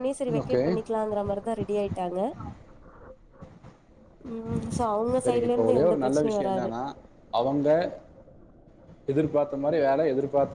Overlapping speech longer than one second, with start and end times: 5.2-6.7

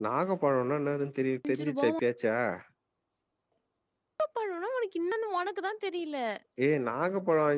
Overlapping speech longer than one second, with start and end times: none

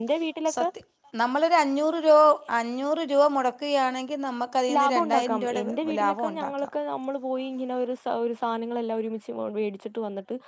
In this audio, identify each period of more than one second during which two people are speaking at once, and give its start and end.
4.8-6.5

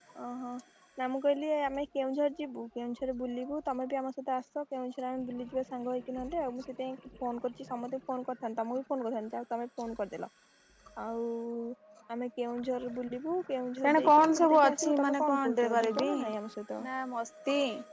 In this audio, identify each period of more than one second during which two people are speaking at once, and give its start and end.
13.8-16.1

